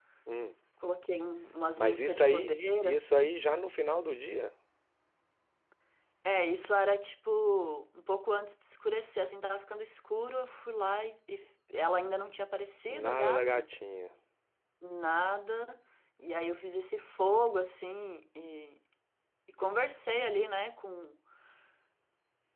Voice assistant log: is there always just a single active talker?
No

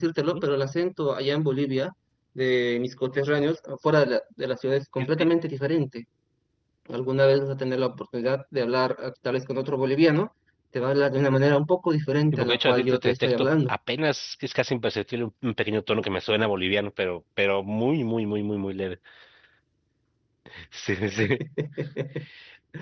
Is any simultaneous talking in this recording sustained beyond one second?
Yes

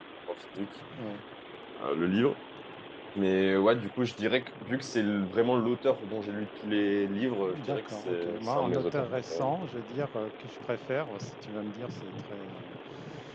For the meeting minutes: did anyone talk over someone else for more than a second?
Yes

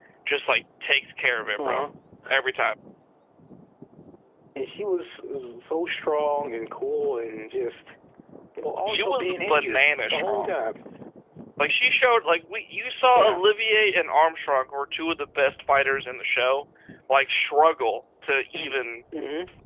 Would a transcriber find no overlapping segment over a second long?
No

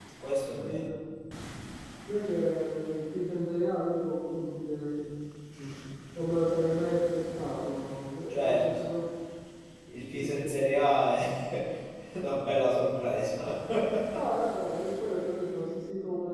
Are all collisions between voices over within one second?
Yes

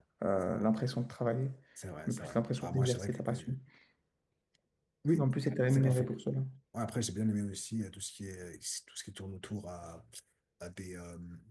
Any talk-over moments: Yes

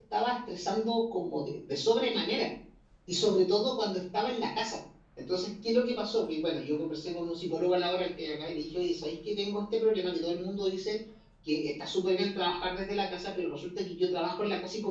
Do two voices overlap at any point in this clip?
No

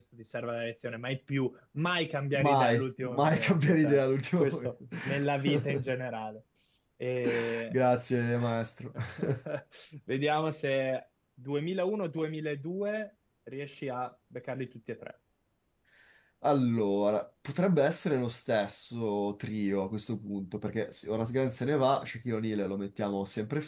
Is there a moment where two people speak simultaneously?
Yes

